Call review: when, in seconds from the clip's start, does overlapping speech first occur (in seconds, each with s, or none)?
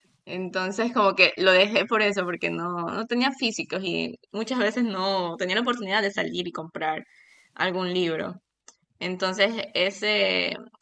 none